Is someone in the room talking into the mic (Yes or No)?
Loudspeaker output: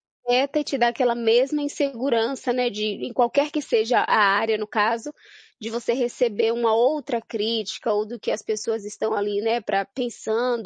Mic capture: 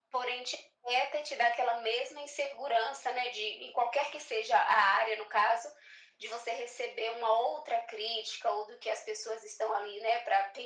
No